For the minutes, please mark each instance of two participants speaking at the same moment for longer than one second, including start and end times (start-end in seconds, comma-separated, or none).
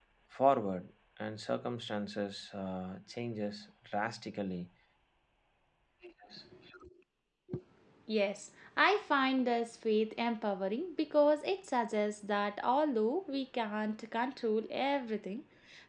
none